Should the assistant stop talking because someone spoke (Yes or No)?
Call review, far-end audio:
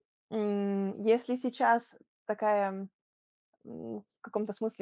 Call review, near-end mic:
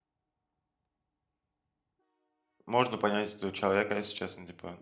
Yes